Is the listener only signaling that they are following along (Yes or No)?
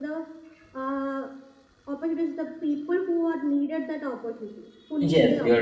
No